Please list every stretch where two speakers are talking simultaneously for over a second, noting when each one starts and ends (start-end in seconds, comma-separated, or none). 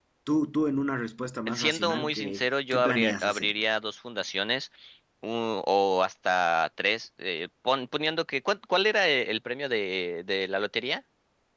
1.5-3.5